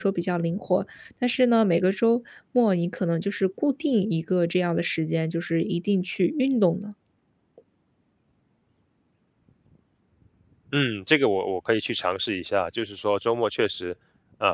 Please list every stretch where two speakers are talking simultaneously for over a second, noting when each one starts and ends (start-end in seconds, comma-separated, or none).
none